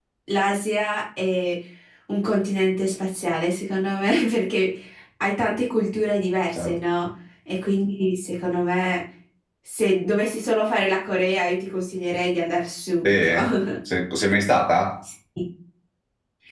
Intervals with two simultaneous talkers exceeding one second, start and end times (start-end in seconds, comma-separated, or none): none